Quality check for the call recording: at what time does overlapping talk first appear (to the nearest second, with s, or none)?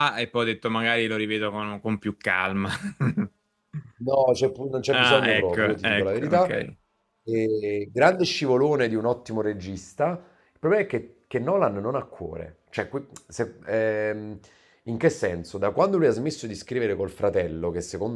5 s